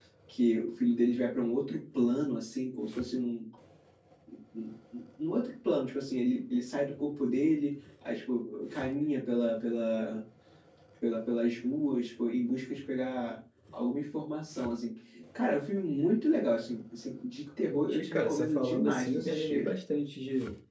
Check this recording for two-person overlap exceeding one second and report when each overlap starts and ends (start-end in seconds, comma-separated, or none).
17.7-19.7